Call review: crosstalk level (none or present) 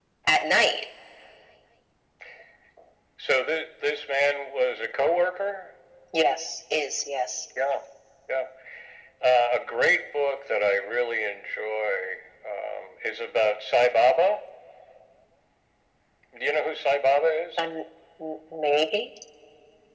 none